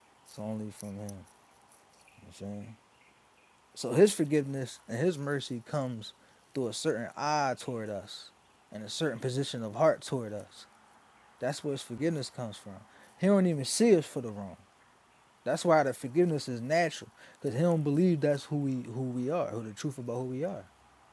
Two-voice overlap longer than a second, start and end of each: none

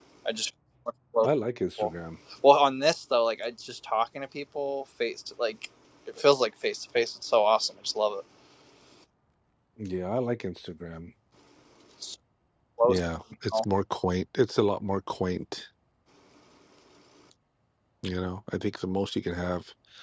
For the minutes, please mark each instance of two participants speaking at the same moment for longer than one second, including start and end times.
none

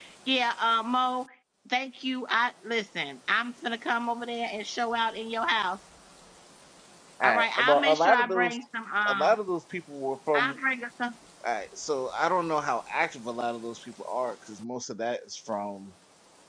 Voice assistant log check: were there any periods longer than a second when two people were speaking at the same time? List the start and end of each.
7.2-8.6

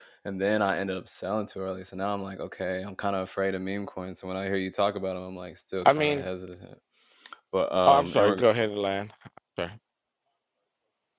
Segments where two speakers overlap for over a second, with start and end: none

